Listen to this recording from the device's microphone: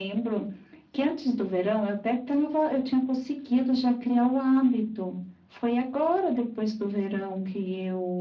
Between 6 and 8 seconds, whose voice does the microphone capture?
echo only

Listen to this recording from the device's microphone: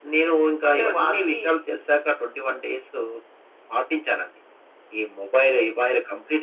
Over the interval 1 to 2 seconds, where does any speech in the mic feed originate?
both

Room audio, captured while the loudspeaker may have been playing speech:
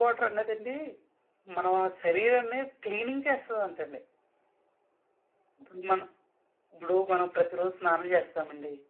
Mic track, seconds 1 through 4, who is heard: echo only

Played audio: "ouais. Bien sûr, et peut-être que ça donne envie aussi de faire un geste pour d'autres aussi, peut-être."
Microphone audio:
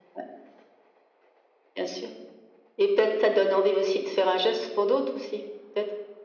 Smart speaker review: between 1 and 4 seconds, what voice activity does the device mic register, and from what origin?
echo only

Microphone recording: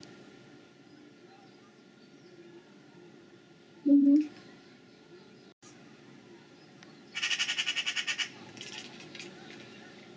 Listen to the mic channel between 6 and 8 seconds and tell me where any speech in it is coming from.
neither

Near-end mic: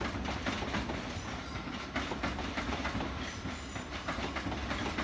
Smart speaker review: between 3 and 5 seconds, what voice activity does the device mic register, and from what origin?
neither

